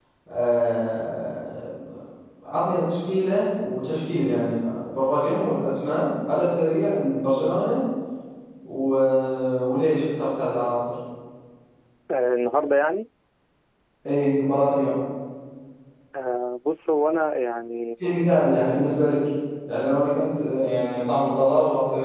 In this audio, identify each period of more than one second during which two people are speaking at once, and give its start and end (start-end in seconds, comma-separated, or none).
none